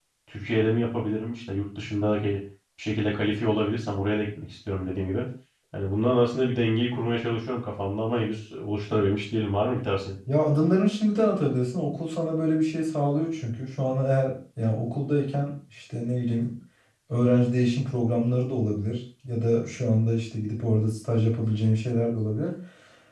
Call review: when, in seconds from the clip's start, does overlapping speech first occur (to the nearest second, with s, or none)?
none